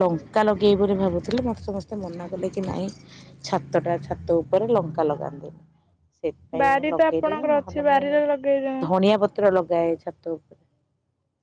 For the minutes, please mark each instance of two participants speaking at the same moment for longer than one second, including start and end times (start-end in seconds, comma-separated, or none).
6.6-8.0